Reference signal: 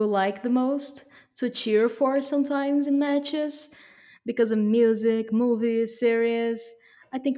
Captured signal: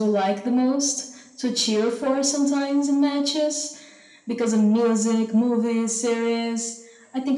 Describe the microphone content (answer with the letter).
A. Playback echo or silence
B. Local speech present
A